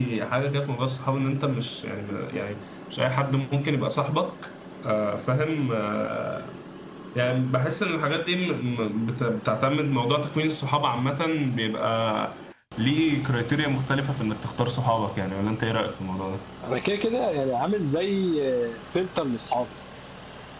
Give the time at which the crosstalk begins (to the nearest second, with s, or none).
none